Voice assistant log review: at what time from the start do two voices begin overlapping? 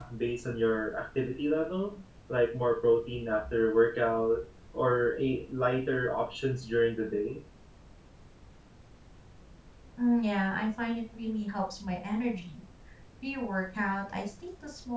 none

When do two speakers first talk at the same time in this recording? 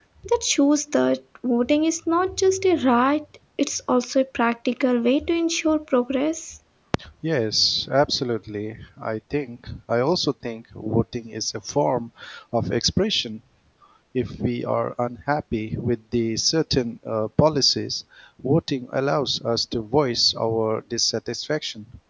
none

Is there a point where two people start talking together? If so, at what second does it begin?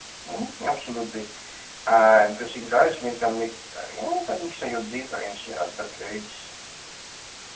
none

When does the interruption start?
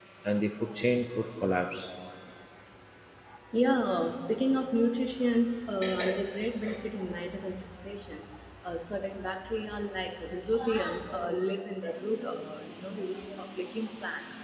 none

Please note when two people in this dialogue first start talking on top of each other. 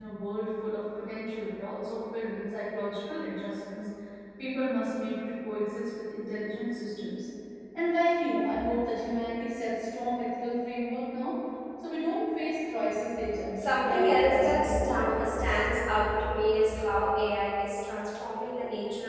13.6 s

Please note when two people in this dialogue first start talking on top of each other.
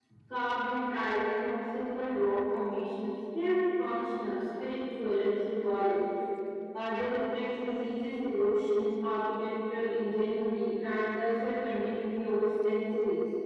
none

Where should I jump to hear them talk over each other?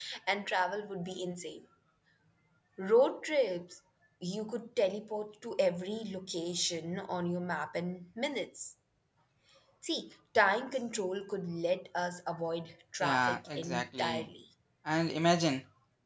13.0 s

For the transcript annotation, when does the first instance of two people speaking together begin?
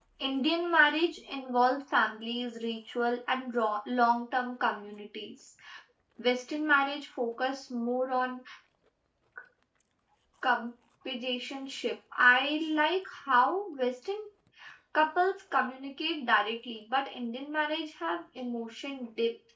none

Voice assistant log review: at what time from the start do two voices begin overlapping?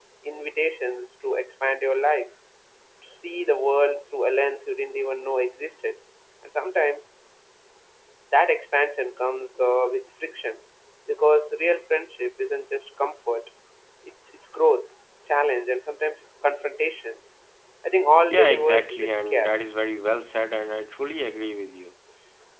18.3 s

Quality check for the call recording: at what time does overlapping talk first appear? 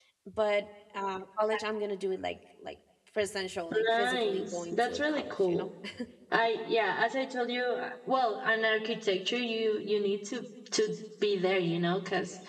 3.7 s

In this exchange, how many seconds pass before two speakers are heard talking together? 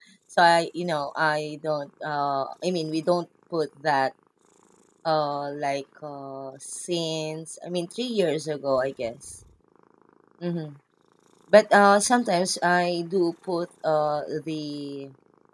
none

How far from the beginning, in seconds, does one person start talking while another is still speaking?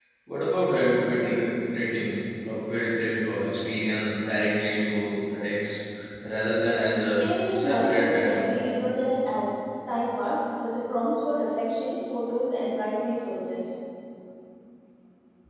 7.1 s

